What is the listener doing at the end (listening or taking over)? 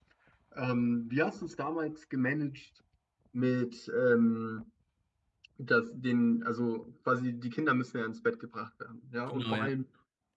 listening